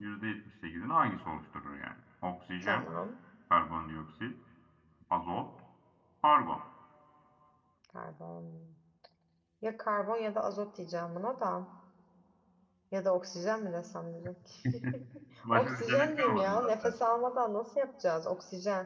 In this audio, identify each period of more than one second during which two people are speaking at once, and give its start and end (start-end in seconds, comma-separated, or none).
15.5-16.9